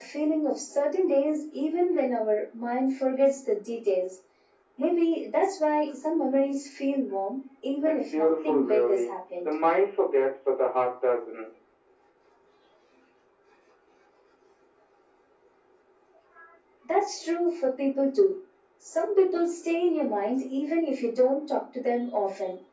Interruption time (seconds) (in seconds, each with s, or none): 7.9 s